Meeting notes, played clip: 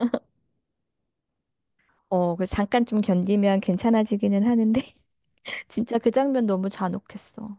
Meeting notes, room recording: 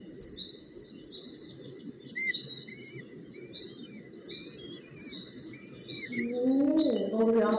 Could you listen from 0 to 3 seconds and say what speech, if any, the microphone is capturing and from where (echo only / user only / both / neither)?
neither